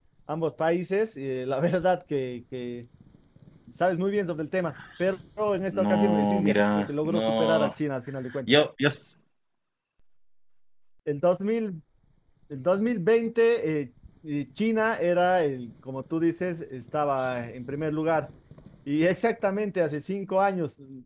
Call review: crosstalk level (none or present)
present